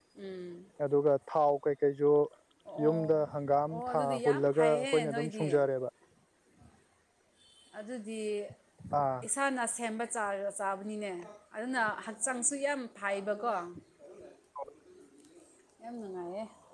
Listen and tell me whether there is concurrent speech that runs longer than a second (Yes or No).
Yes